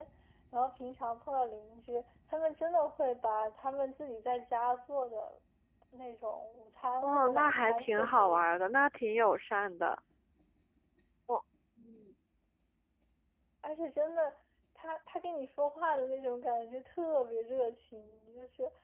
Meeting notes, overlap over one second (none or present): present